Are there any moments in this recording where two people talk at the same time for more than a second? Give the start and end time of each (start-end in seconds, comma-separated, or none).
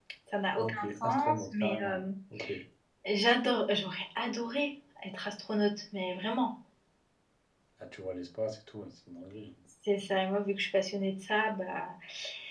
0.6-2.0